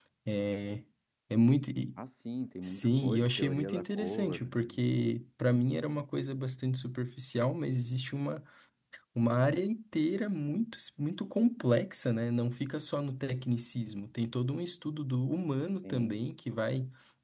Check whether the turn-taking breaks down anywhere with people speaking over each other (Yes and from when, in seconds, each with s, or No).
Yes, from 2.6 s